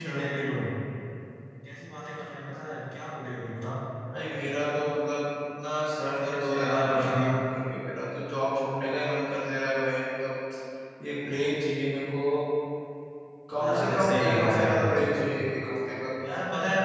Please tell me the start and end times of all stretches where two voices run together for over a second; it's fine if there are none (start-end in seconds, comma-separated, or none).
6.0-7.3, 13.6-15.2